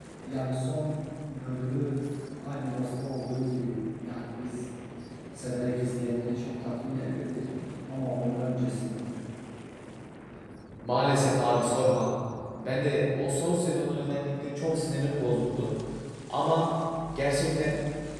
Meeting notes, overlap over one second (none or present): none